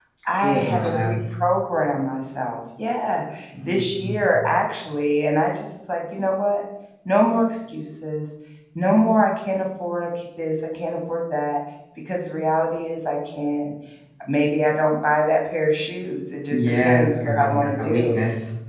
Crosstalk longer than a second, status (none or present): present